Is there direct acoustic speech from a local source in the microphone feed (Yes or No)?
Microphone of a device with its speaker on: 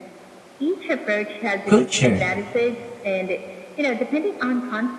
Yes